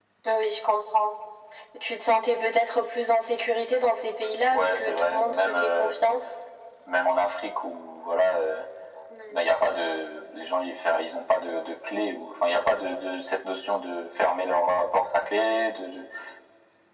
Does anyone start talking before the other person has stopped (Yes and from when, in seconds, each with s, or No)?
Yes, from 4.5 s